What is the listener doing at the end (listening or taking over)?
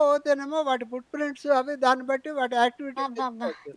taking over